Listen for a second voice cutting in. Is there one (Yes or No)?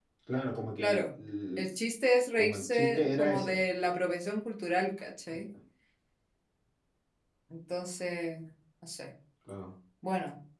Yes